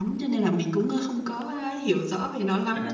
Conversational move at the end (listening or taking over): taking over